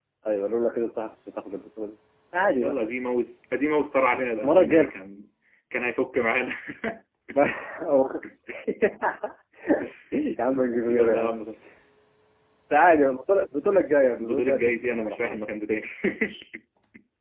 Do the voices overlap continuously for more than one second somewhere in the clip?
Yes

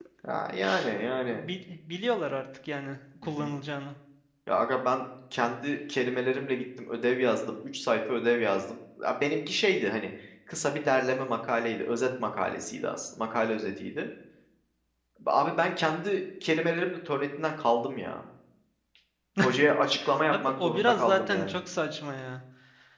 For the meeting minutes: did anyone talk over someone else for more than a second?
Yes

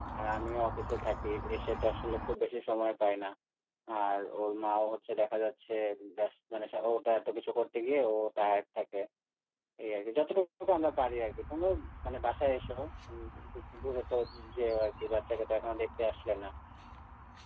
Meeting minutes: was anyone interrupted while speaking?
No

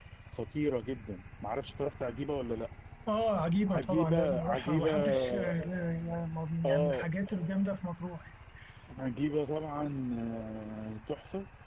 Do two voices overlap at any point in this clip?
Yes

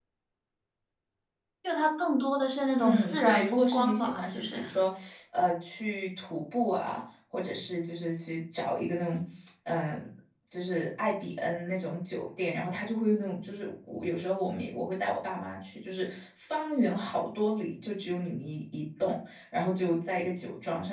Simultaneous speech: Yes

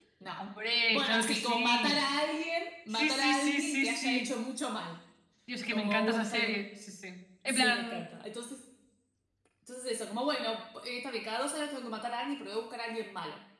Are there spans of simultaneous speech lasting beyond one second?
Yes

